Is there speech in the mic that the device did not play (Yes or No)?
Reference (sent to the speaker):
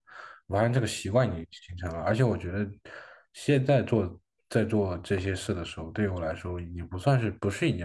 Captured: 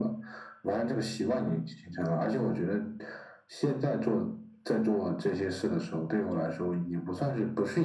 No